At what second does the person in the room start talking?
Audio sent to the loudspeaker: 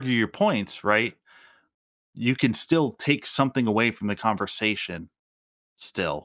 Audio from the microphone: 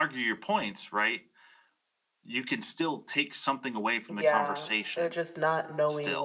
4.1 s

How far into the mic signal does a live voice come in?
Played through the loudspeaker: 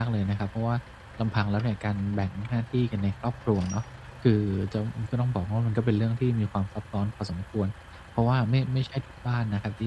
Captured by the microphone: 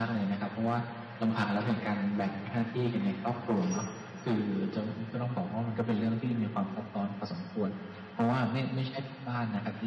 none

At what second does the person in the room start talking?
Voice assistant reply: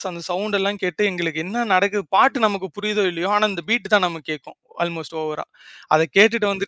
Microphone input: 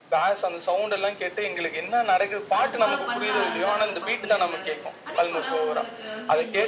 2.6 s

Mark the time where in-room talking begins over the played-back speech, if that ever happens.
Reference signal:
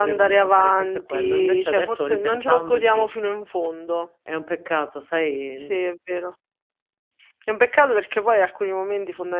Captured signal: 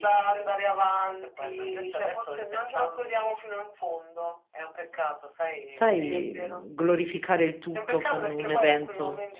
5.7 s

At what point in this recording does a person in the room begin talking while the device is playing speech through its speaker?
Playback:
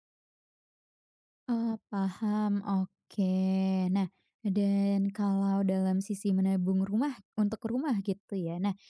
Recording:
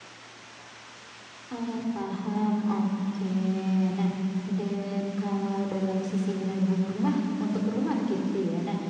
none

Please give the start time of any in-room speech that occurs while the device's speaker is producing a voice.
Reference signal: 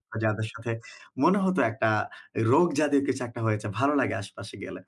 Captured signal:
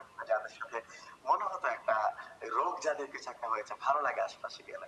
none

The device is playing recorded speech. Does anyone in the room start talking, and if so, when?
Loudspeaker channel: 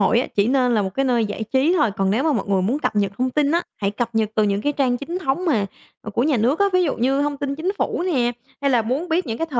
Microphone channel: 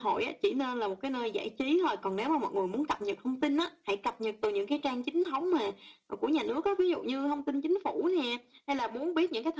none

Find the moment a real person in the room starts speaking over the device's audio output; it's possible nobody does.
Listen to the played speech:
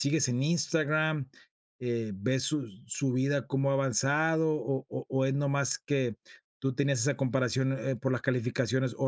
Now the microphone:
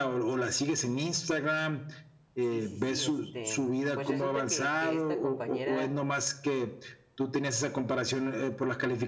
2.4 s

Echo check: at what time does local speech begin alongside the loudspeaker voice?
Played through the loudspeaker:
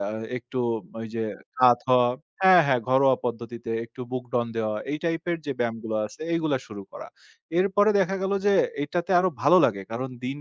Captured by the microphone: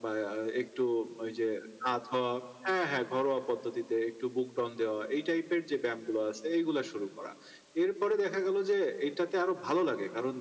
none

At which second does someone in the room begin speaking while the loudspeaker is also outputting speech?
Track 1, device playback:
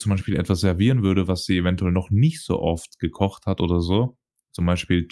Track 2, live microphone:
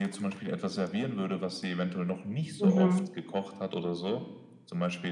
2.6 s

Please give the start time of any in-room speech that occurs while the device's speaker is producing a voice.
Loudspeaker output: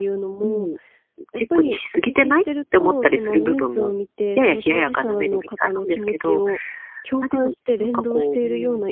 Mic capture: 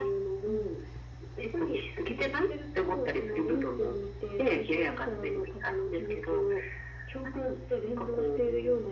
none

